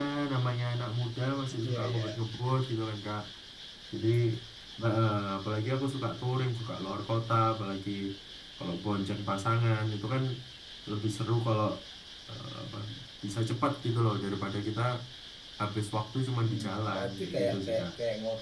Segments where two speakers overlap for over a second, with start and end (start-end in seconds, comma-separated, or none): 16.4-17.9